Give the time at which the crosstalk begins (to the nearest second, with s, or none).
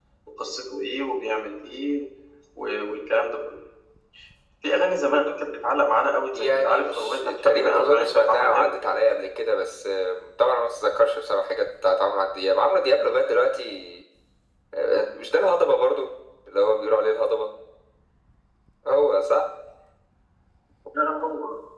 6 s